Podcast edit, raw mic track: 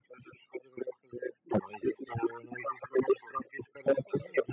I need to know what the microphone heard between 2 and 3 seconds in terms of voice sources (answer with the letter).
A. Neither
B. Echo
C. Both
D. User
B